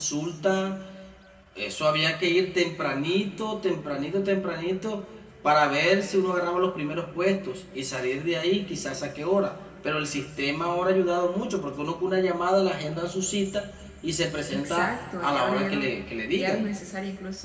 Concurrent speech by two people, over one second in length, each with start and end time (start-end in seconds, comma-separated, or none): 14.5-15.9